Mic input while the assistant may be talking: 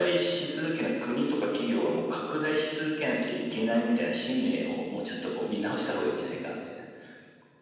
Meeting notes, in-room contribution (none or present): none